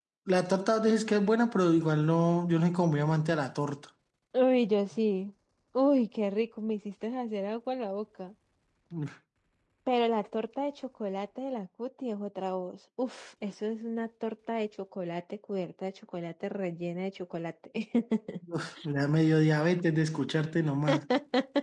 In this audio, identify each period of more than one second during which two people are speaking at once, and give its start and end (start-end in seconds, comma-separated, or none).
none